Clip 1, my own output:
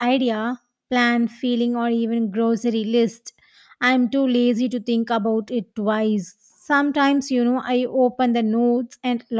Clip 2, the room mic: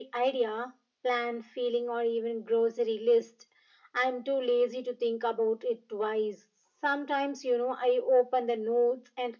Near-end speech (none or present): none